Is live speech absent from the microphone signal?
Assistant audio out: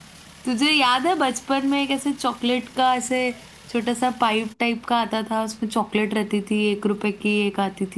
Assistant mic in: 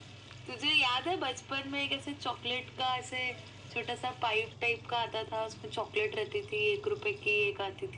Yes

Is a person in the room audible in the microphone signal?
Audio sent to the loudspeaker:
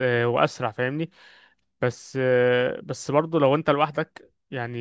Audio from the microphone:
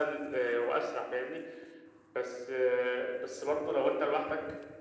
No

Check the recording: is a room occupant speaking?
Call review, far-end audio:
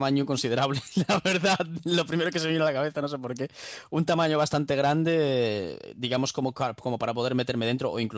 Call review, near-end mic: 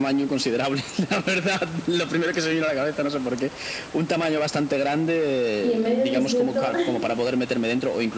Yes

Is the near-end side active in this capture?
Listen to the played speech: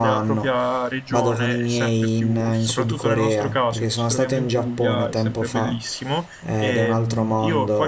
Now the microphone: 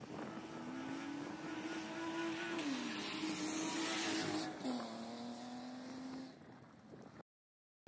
No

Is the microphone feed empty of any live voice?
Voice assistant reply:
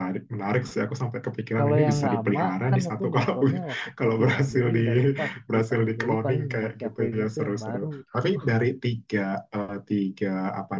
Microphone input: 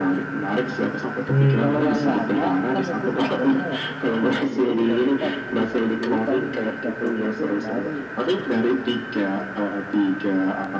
No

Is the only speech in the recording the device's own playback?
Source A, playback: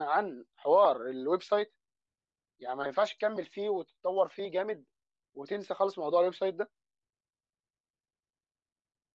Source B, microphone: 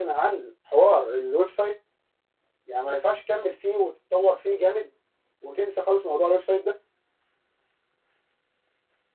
Yes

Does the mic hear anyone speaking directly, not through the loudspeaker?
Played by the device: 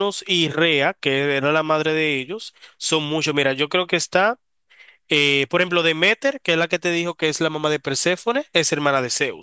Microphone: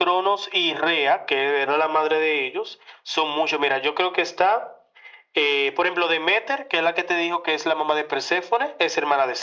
No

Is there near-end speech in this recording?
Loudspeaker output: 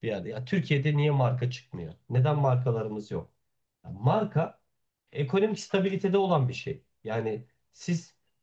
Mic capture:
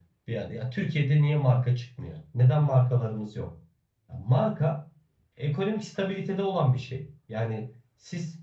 No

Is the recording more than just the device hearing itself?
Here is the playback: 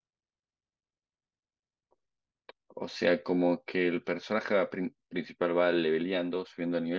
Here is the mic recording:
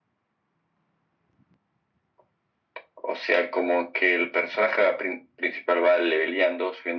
No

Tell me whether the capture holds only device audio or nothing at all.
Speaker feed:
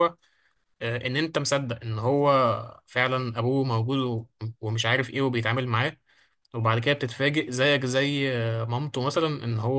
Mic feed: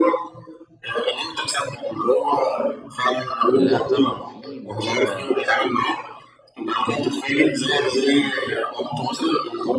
No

